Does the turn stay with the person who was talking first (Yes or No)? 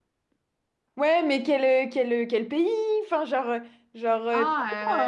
No